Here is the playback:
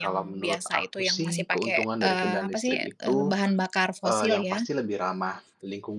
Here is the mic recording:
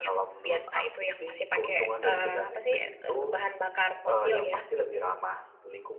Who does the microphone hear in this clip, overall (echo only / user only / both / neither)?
echo only